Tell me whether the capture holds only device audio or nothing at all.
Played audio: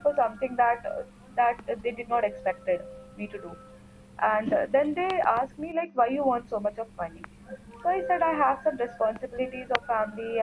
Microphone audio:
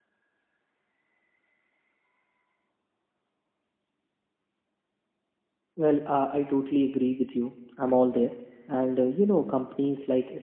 No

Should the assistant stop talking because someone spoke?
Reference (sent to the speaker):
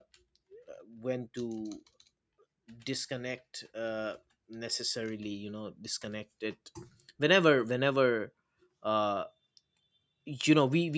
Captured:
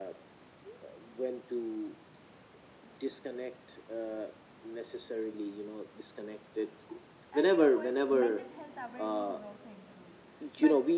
Yes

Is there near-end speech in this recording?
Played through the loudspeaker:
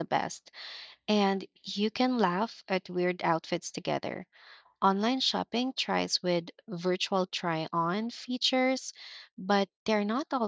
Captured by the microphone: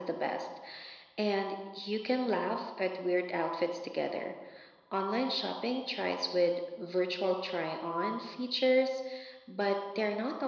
No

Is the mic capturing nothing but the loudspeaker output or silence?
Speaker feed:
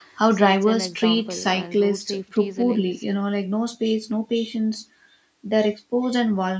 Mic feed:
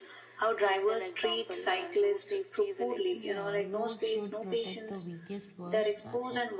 No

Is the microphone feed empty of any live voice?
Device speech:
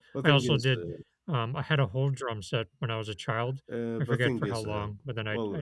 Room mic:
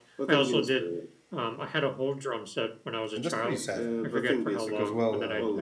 No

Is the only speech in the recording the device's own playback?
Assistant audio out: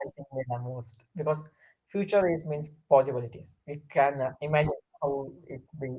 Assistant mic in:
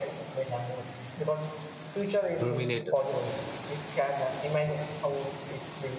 No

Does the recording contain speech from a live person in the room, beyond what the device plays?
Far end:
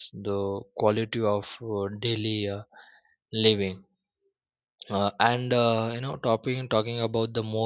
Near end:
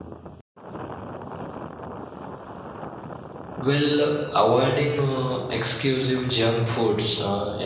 Yes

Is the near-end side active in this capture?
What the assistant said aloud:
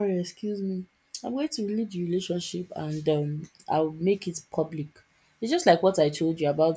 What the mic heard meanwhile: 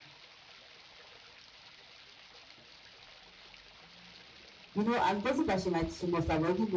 Yes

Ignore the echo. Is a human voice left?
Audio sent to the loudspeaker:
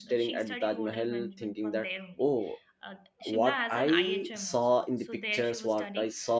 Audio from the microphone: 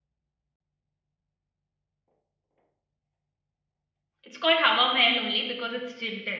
Yes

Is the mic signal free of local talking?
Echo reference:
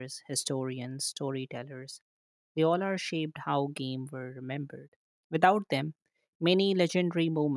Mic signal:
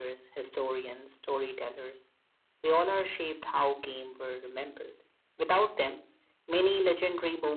Yes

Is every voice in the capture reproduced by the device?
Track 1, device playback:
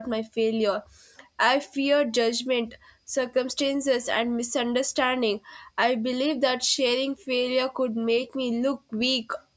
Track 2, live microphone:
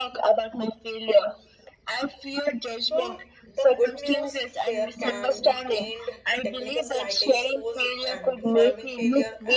No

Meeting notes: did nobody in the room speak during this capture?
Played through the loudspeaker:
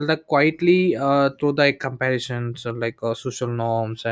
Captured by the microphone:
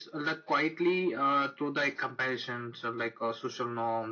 Yes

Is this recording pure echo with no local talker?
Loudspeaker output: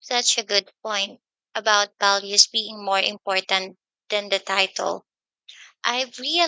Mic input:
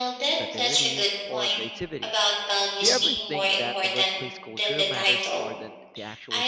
No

